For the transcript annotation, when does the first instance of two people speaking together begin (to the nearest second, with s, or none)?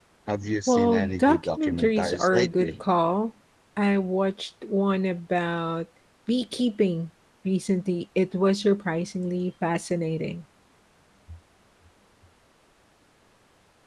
1 s